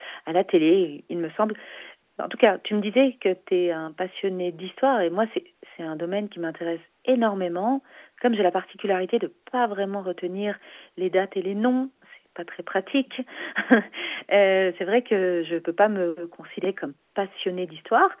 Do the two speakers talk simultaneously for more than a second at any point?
No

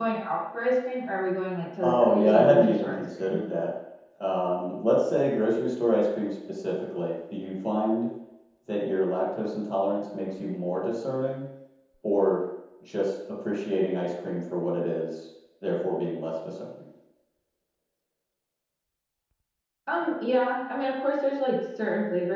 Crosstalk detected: Yes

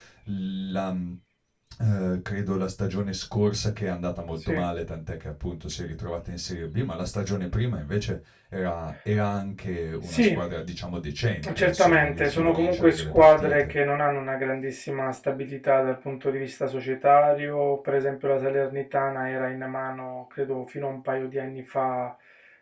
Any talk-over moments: Yes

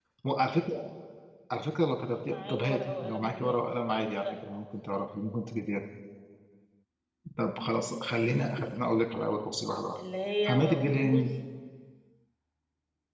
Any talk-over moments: Yes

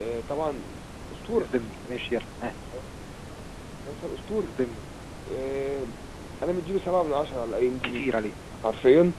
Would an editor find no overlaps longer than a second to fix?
Yes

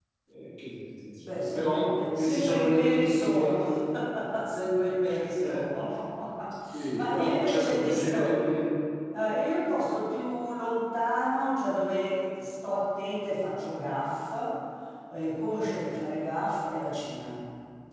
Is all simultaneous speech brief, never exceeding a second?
No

